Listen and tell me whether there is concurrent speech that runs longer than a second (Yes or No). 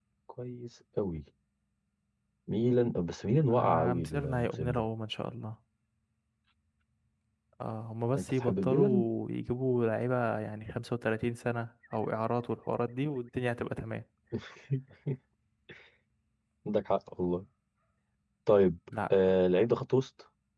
Yes